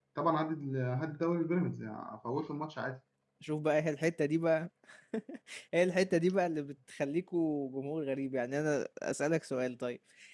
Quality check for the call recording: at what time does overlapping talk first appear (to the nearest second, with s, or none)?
none